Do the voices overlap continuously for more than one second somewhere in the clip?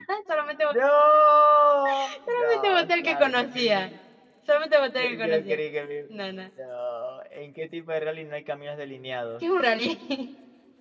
Yes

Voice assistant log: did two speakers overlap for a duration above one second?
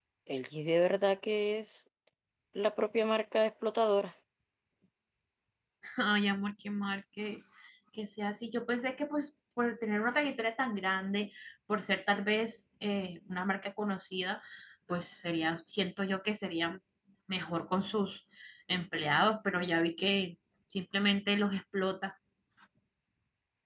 No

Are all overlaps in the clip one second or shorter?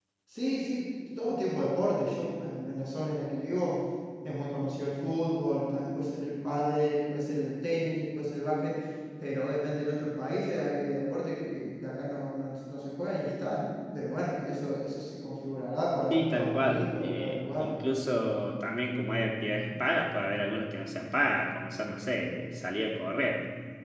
No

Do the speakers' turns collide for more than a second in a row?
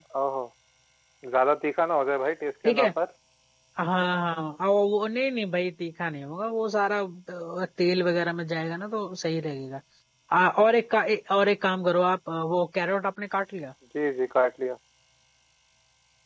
No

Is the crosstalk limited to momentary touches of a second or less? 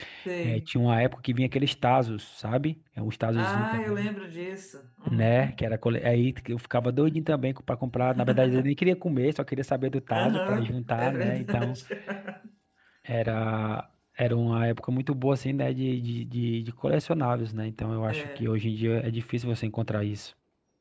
No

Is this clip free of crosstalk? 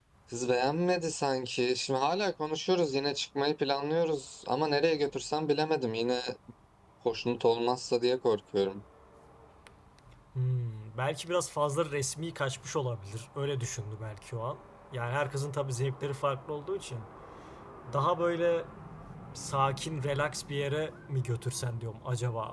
Yes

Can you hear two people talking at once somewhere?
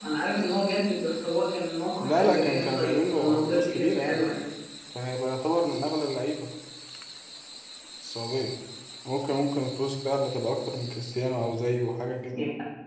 Yes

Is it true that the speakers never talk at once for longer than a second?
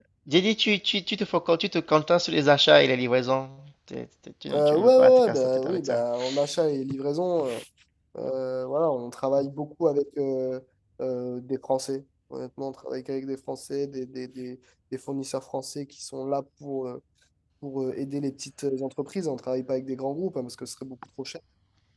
No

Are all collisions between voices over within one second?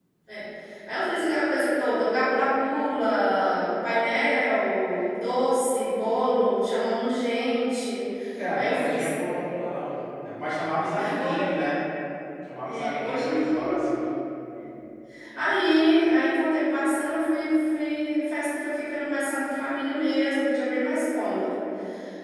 No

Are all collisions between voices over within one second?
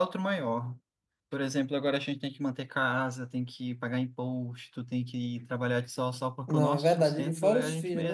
No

